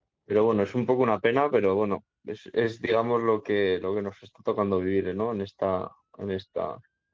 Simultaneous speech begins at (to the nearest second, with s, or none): none